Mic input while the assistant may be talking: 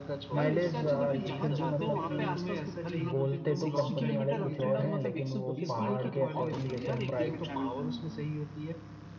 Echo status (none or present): present